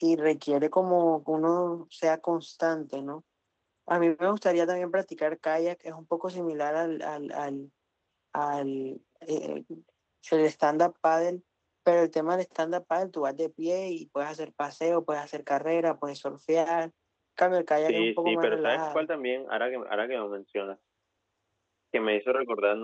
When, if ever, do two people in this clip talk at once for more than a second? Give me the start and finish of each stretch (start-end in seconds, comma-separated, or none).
17.8-19.1